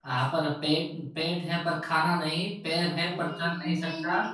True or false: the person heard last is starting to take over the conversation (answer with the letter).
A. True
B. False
A